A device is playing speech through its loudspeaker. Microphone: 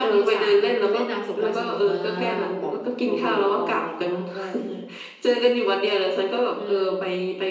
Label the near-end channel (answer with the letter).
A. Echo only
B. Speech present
A